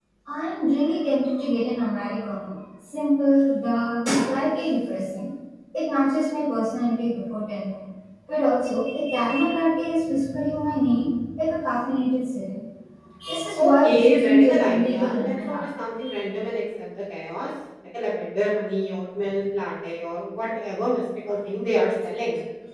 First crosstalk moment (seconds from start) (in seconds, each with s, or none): 13.6 s